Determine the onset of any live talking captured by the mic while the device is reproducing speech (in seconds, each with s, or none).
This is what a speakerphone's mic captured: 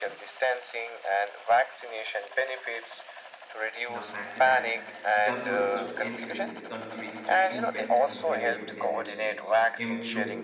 3.9 s